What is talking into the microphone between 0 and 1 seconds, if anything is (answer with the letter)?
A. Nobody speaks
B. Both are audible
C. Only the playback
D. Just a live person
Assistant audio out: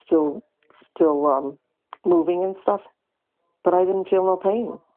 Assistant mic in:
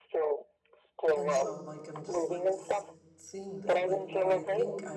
C